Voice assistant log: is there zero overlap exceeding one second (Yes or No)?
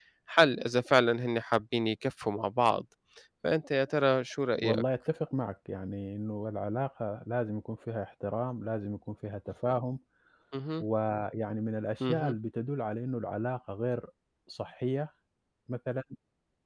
Yes